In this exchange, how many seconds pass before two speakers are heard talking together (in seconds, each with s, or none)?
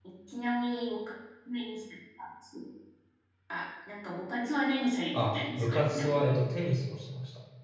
5.1 s